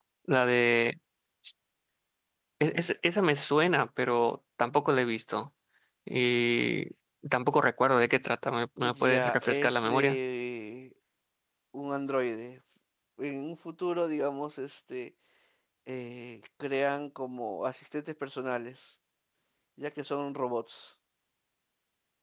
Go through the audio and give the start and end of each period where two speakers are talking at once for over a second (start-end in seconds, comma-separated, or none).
8.8-10.2